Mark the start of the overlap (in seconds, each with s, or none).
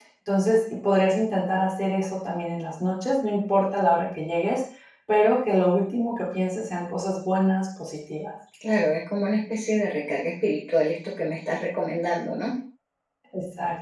none